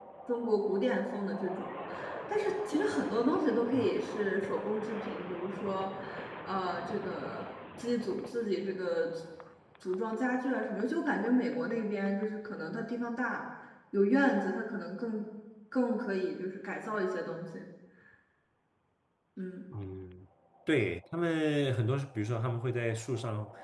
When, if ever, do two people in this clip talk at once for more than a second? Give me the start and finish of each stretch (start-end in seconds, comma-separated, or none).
none